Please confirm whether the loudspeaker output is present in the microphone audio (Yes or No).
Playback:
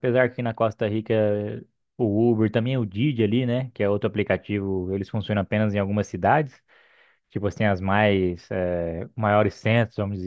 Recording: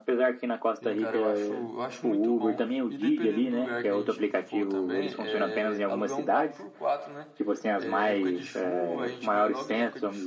Yes